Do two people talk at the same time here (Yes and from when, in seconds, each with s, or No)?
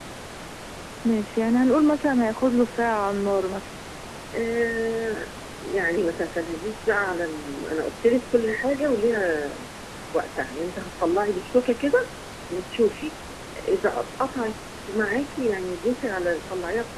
No